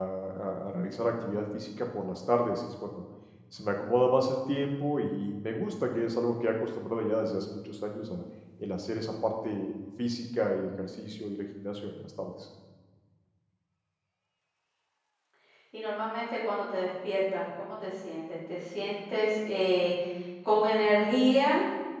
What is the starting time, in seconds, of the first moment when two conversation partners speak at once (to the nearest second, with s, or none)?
none